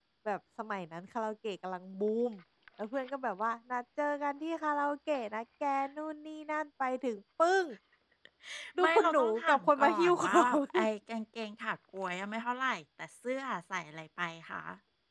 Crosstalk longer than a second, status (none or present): present